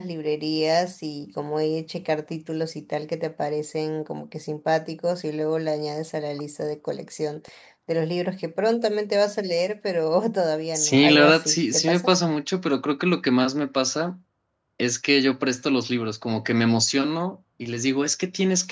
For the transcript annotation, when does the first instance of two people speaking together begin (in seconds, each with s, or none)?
10.7 s